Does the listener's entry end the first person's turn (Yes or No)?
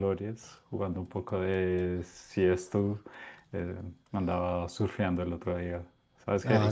No